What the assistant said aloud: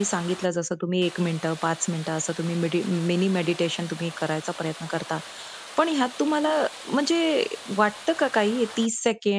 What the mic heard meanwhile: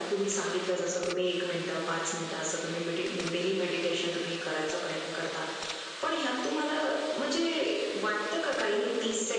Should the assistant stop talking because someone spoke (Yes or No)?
No